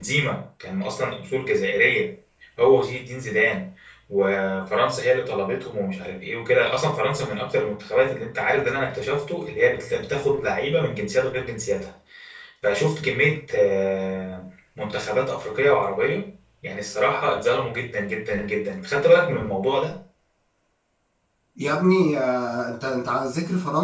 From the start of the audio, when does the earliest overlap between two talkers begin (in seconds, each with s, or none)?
none